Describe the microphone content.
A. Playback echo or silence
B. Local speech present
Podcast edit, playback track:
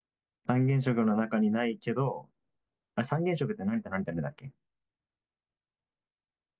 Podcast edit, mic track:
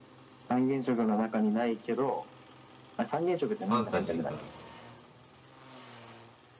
B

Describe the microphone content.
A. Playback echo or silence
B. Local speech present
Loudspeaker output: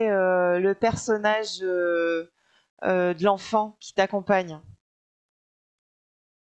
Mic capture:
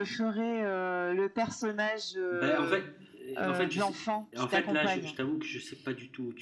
B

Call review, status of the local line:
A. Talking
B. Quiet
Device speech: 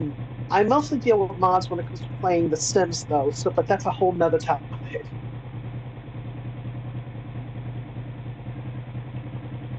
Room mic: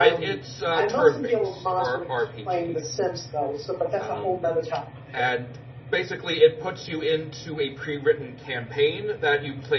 A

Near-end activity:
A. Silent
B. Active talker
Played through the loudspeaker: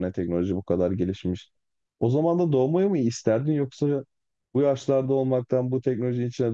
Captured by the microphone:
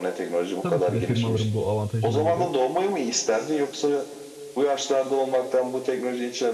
B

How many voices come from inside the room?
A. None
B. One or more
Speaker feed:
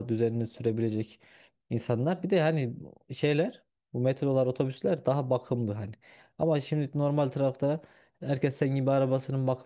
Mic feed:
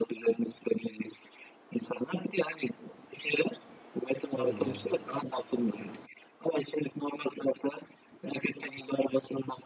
B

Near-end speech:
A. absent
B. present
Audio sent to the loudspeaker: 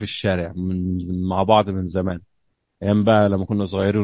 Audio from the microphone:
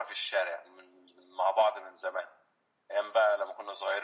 A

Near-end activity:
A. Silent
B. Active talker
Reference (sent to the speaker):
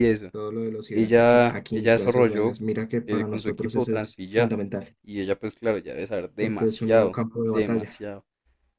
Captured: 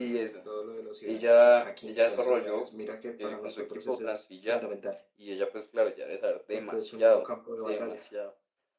A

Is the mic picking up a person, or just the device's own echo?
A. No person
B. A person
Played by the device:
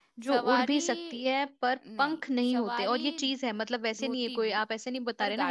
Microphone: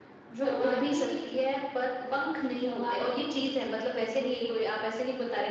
A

